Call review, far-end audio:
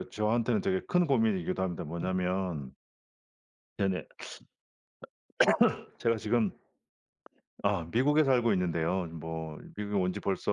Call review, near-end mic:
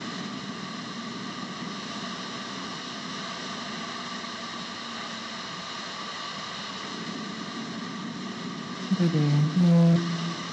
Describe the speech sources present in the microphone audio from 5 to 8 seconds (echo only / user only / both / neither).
neither